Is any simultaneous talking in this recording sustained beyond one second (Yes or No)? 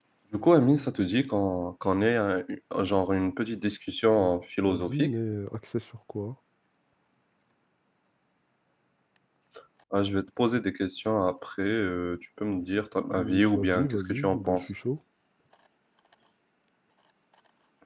Yes